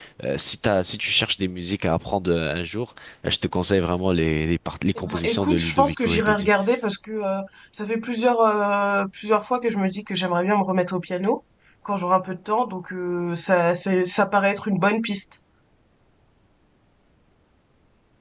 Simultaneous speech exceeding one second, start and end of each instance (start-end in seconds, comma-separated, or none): 5.0-6.5